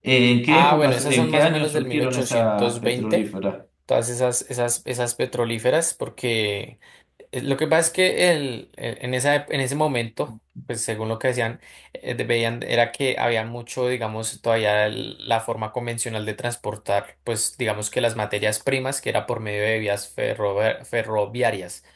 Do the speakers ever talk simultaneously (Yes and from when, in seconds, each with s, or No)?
Yes, from 0.5 s